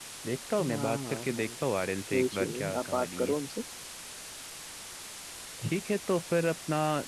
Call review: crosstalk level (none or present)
present